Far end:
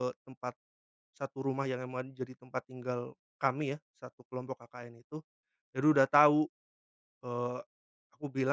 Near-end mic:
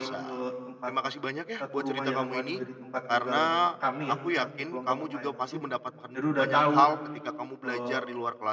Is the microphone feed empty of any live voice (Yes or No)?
No